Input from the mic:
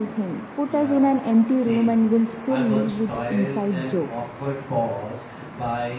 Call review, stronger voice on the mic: echo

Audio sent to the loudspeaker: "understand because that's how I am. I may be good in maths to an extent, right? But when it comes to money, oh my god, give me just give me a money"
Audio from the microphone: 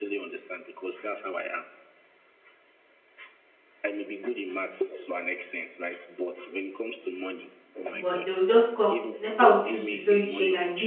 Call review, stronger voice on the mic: user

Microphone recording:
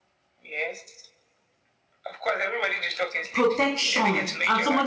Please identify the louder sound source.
user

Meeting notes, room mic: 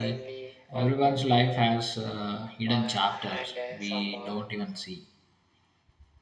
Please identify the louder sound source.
user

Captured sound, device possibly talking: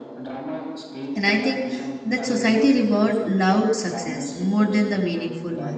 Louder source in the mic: user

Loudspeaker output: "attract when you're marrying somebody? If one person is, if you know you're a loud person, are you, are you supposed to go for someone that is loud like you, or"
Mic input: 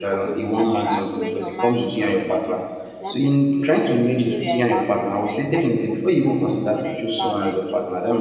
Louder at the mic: user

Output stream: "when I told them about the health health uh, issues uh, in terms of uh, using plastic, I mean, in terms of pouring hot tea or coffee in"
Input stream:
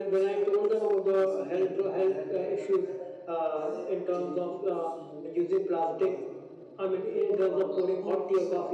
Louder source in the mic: echo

